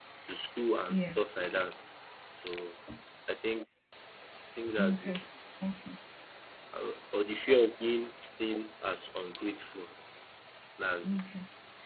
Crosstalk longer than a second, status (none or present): none